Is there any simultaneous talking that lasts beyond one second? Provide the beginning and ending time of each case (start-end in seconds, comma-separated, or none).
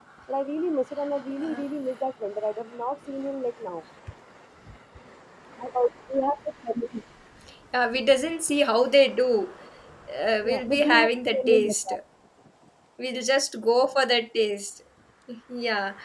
10.4-11.9